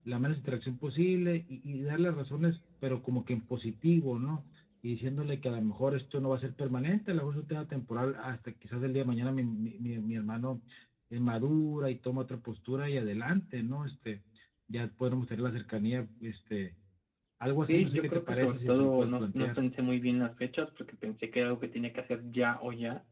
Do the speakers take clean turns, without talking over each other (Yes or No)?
No